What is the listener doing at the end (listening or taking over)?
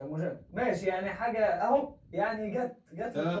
taking over